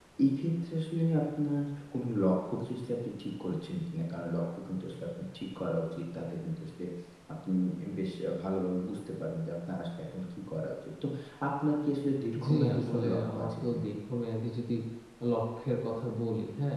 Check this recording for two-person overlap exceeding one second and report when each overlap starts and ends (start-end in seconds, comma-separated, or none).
12.4-13.8